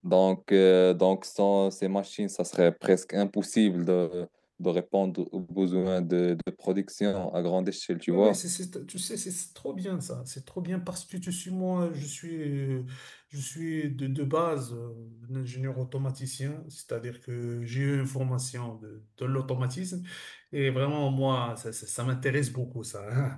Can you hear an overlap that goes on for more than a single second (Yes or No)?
No